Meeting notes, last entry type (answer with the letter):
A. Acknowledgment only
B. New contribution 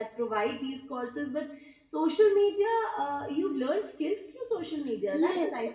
B